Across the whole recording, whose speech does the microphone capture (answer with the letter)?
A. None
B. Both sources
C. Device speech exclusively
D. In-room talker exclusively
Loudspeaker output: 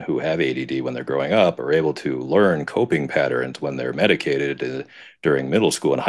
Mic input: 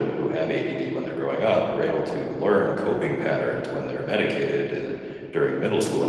C